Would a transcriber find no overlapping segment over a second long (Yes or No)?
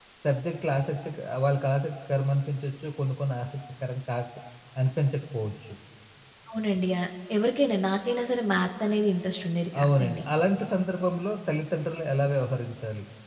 Yes